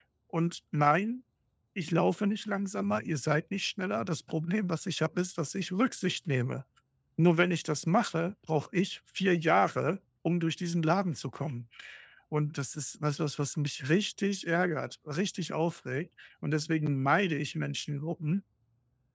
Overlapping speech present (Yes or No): No